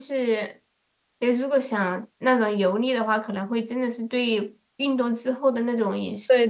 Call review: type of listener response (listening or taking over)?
taking over